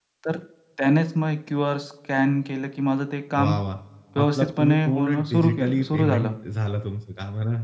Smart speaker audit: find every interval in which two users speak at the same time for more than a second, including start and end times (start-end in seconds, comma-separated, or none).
4.2-6.3